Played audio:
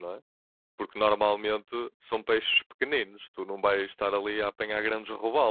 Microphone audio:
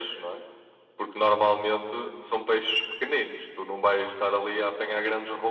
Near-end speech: none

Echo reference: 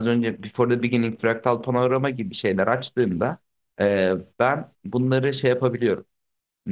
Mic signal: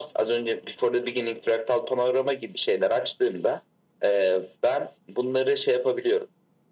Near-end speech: none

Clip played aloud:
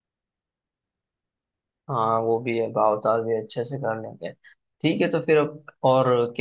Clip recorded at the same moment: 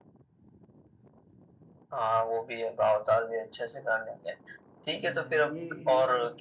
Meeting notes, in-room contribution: present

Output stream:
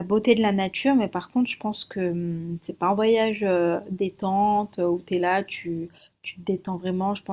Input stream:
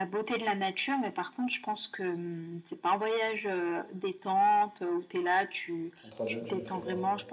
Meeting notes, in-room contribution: present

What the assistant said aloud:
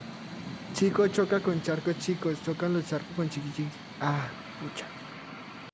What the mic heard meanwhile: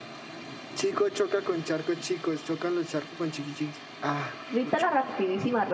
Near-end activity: present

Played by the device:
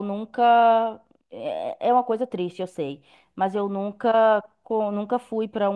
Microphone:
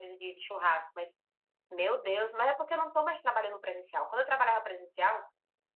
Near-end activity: present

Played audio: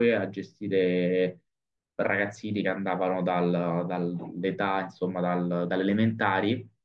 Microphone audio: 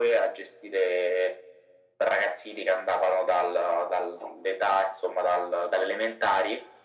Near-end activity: none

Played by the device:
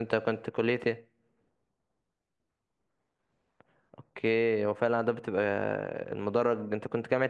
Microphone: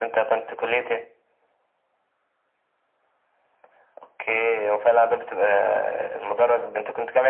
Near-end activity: none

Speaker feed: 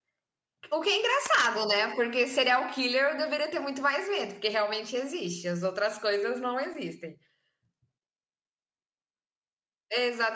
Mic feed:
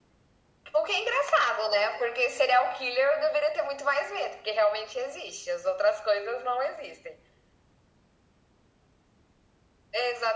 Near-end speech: none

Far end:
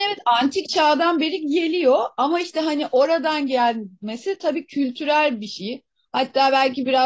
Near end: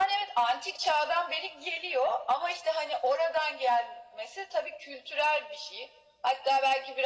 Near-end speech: none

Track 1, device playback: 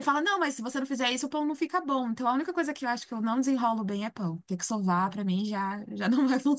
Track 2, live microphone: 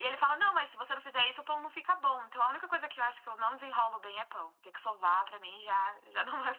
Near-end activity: none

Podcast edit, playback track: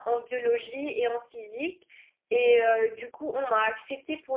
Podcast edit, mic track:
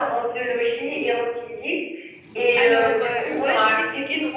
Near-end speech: present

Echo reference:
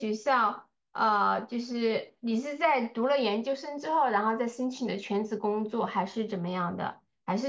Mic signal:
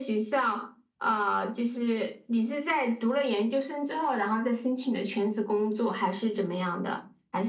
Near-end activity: none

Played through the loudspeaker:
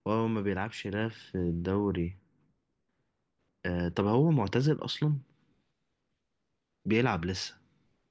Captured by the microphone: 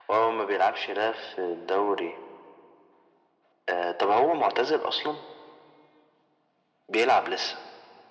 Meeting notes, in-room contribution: none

